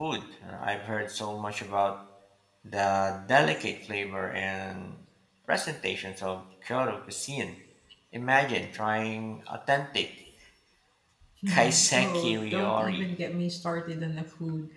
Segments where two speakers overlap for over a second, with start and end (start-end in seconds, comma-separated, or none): 11.5-13.0